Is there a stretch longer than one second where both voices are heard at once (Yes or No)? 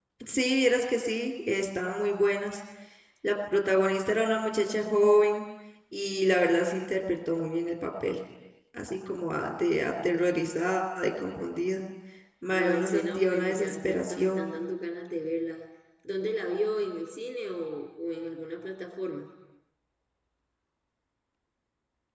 Yes